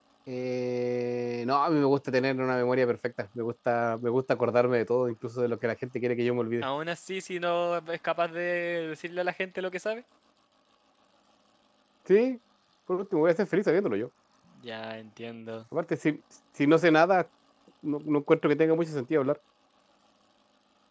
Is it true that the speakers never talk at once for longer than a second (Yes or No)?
Yes